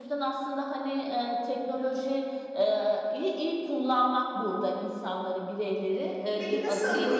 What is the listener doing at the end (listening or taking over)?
taking over